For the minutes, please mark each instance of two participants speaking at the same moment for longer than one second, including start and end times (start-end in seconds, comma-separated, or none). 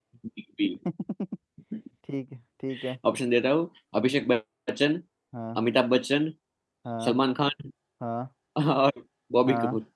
none